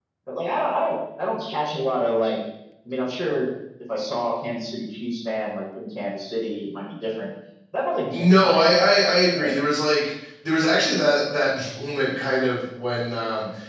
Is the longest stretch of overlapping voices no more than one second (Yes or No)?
No